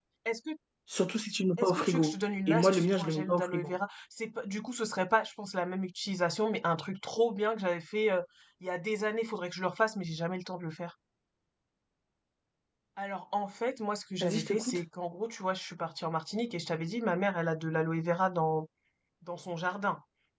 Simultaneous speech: Yes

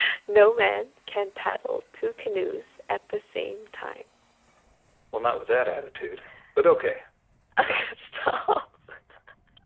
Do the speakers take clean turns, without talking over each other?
Yes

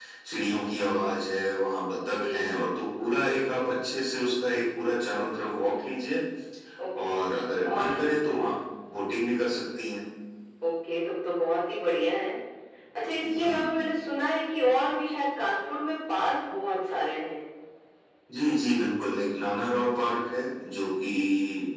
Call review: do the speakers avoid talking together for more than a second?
Yes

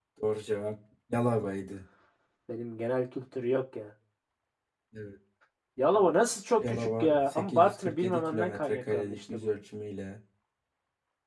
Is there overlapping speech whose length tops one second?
Yes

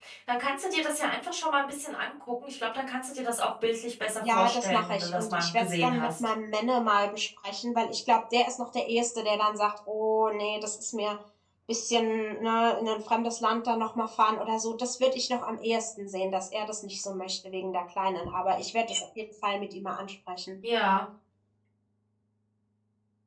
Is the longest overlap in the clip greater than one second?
Yes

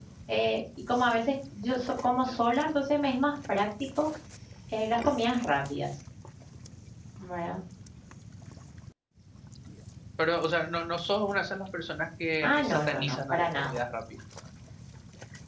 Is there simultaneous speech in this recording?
Yes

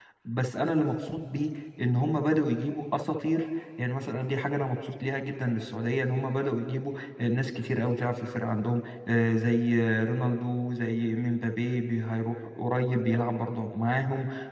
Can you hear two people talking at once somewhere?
No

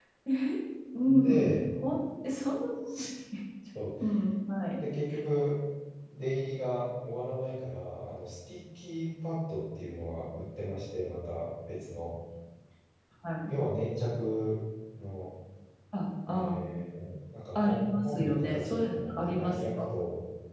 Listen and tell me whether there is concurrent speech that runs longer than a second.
Yes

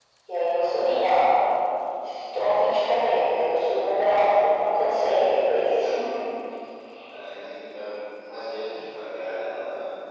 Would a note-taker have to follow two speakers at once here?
No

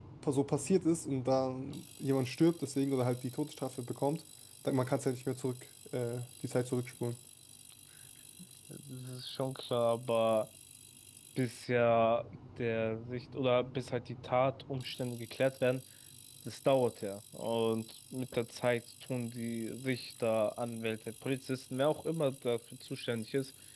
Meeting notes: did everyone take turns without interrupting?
Yes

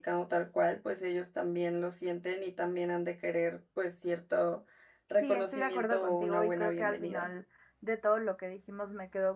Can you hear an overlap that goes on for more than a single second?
Yes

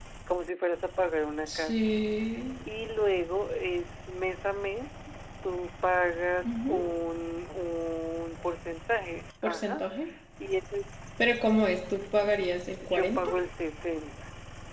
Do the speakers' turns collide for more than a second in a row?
No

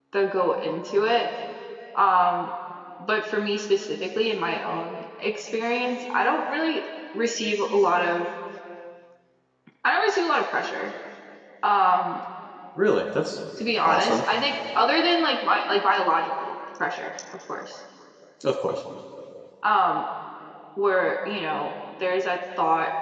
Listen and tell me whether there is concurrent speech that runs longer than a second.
No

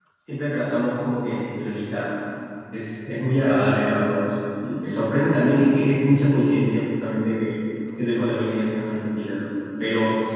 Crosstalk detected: No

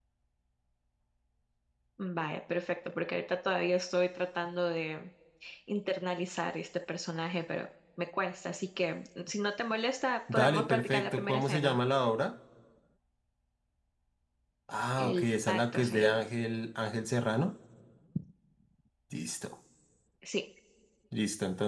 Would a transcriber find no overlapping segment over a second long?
No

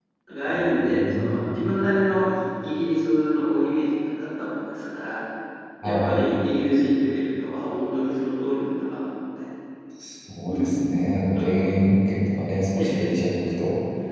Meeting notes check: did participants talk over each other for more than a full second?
Yes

